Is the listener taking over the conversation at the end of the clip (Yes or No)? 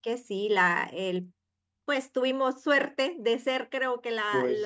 No